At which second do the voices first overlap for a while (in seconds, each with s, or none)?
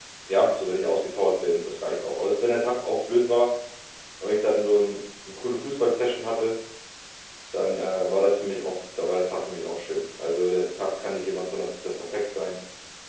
none